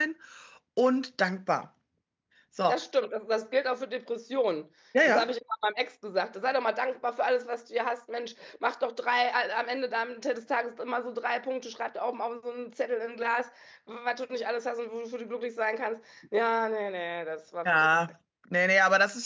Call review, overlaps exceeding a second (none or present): none